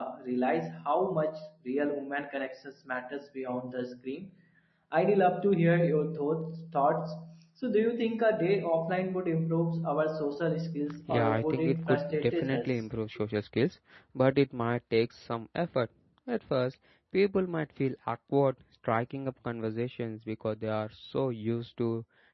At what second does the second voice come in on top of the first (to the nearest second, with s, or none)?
11 s